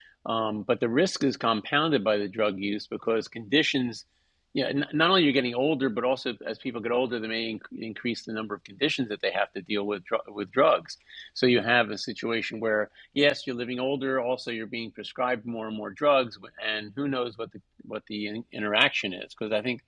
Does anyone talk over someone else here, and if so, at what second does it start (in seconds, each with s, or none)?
none